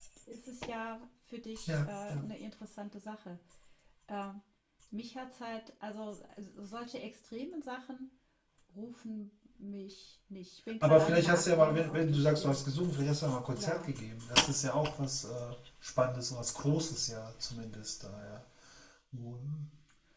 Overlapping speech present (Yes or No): Yes